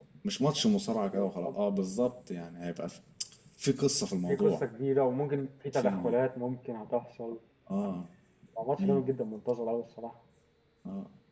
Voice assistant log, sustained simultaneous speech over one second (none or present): none